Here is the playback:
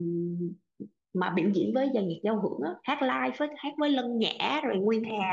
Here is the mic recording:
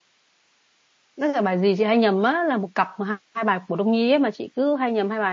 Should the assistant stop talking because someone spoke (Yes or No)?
Yes